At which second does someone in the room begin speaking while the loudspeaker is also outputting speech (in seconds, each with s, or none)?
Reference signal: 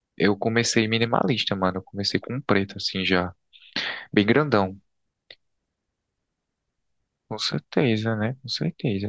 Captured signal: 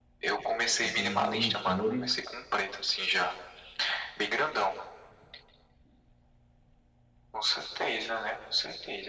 0.8 s